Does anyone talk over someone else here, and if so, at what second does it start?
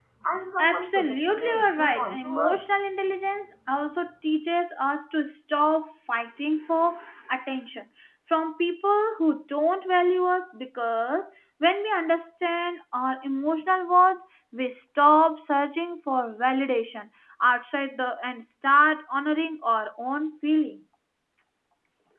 1 s

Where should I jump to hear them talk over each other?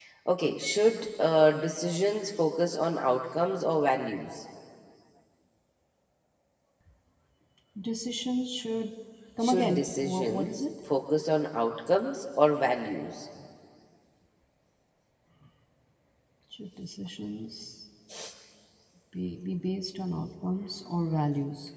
9 s

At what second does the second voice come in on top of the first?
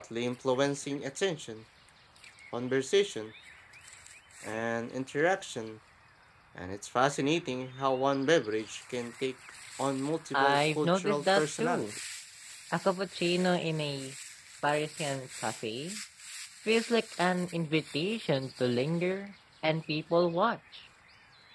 10 s

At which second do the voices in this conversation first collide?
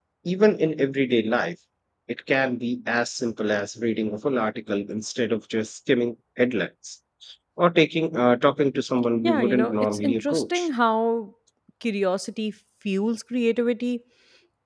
9 s

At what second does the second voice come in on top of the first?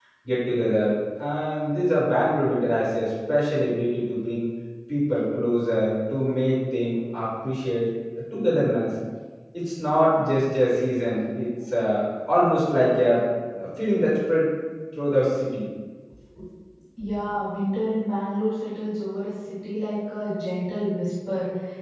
none

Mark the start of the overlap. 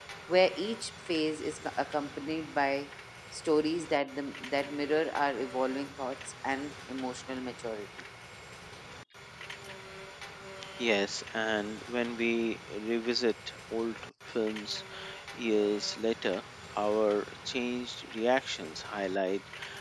none

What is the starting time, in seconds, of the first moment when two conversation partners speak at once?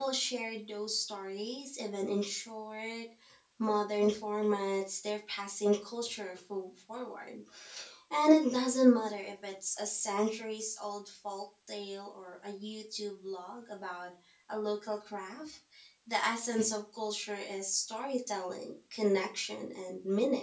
none

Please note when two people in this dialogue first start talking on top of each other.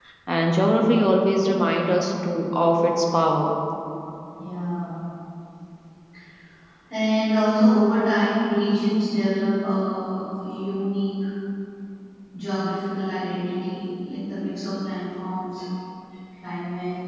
none

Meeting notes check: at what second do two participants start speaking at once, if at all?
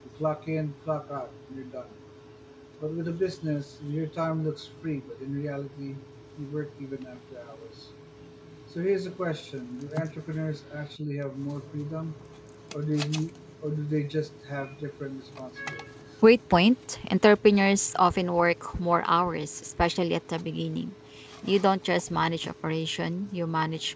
none

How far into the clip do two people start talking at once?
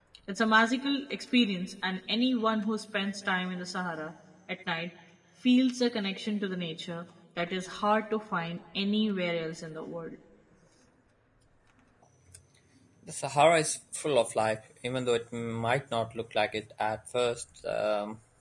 none

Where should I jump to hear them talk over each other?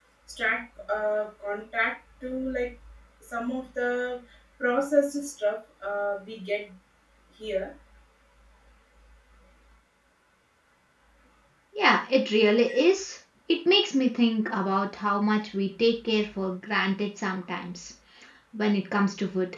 none

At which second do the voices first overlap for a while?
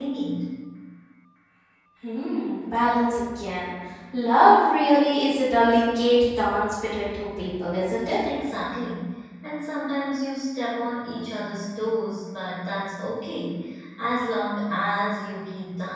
none

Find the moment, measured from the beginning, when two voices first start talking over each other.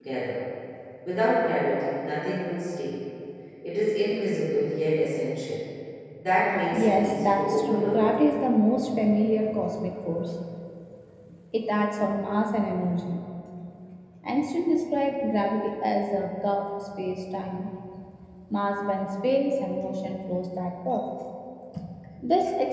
7 s

